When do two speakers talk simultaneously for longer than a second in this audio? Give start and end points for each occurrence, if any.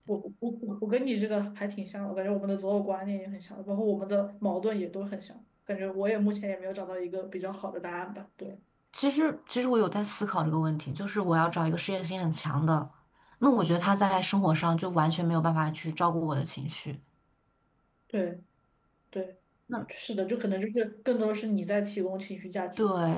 none

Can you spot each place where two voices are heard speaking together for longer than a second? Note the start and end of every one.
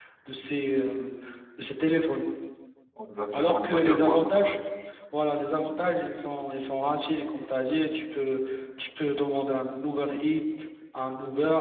3.3-4.5

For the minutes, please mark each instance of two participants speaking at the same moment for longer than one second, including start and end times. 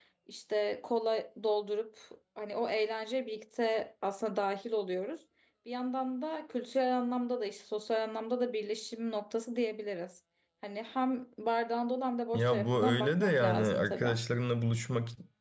12.3-14.1

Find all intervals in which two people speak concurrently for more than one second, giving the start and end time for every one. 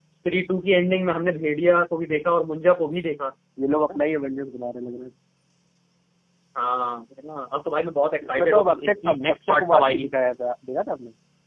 8.2-10.1

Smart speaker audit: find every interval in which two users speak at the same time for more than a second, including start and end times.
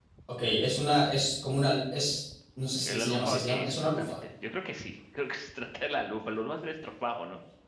2.8-4.2

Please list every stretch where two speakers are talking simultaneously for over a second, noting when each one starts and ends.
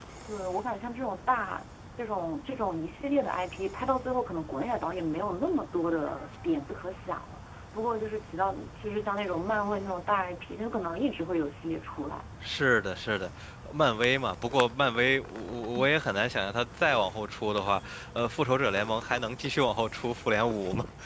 none

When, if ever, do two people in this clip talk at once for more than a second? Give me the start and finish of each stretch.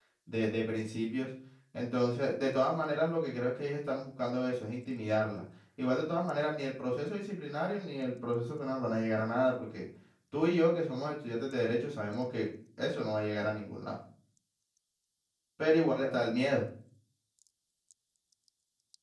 none

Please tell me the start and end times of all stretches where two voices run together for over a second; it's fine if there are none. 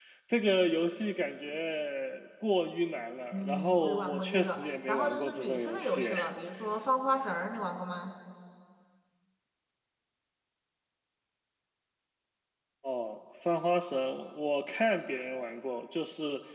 3.3-6.1

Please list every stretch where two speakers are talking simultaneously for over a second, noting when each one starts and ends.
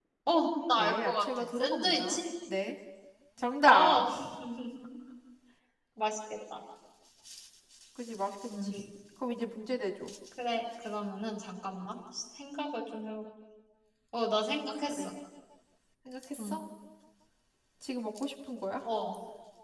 0.8-2.2

